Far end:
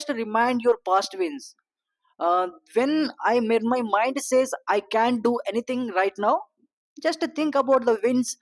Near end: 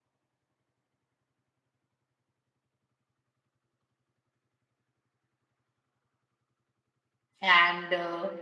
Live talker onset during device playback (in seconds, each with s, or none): 7.4 s